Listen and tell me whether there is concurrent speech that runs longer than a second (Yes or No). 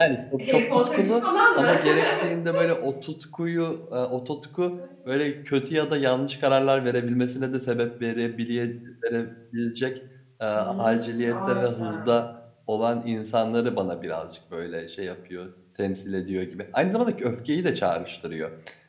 Yes